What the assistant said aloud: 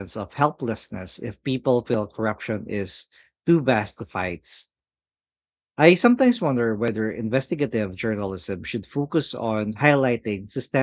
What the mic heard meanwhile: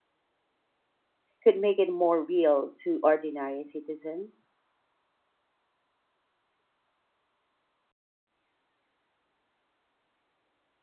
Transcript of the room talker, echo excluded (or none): could make it more real to ordinary citizens?